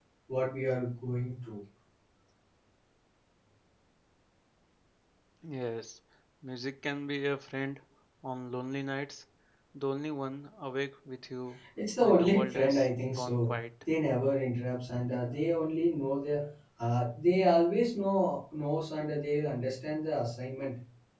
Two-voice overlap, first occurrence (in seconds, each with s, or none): 11.8 s